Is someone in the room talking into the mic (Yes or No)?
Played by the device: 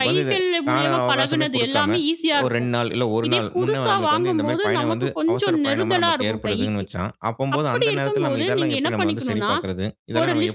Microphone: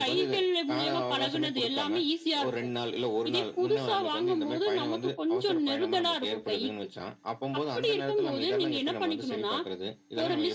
No